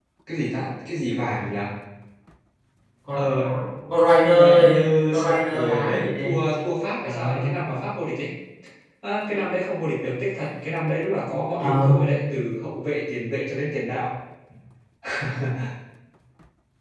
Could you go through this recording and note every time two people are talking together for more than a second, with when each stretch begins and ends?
5.2-6.4

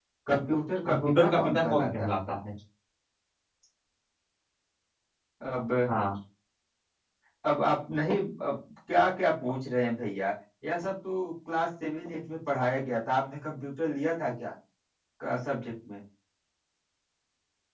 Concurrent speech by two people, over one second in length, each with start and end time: 0.8-2.2

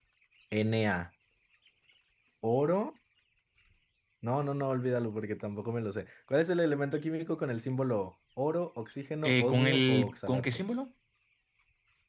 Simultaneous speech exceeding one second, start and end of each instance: 9.2-10.6

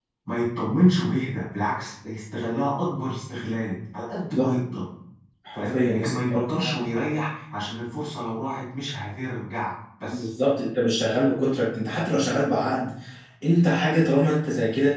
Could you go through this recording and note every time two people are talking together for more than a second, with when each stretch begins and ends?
5.5-6.8

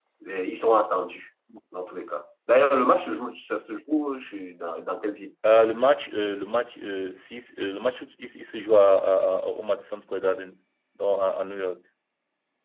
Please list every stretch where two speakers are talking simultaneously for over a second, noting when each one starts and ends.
none

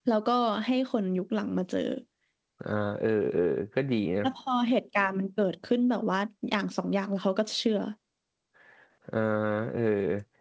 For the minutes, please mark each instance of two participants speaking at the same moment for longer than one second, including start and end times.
none

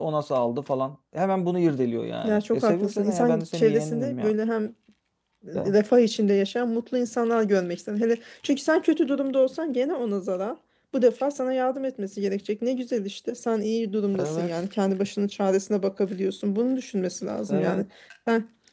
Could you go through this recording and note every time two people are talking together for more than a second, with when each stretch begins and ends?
2.2-4.3

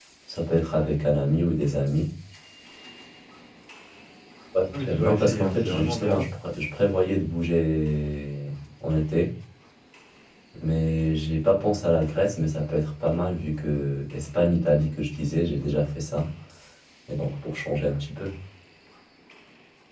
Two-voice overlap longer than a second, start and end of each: 4.7-6.2

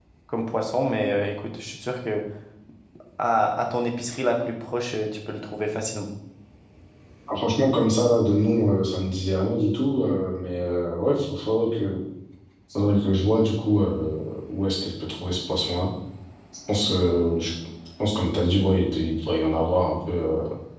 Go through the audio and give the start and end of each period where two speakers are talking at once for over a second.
none

